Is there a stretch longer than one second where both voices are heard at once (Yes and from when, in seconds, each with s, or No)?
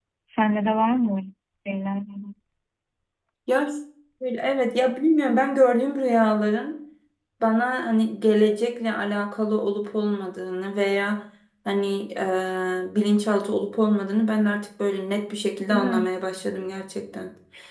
No